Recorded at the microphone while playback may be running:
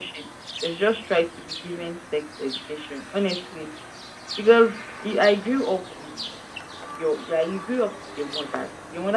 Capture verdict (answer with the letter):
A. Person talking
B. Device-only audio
B